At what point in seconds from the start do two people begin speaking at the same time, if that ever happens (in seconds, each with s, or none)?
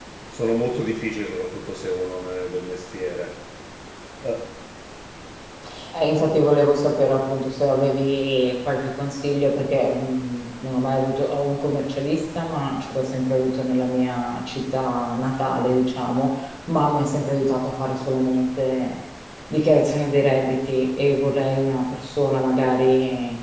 none